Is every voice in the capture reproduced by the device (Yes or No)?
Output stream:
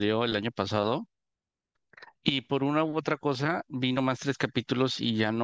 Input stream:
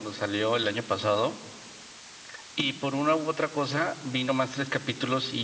Yes